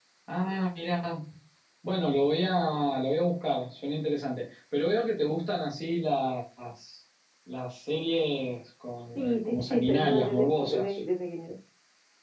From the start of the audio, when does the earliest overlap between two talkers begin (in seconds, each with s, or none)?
9.2 s